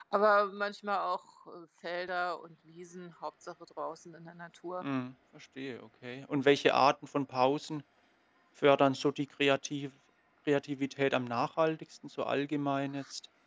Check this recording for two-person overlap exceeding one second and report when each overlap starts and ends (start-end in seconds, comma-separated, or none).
none